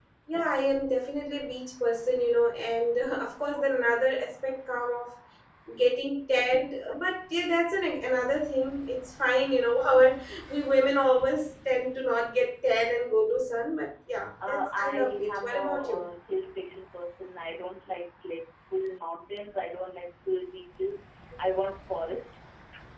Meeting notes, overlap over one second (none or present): present